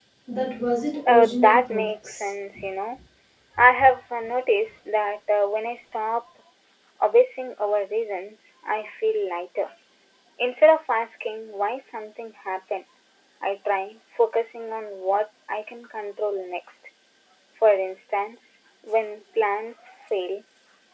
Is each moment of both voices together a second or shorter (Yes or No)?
No